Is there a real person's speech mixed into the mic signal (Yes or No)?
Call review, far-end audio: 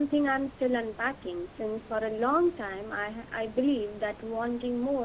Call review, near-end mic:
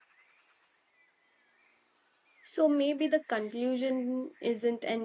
Yes